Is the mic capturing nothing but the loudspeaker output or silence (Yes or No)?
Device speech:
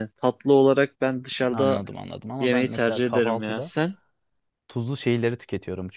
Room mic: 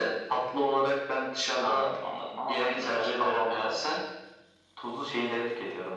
Yes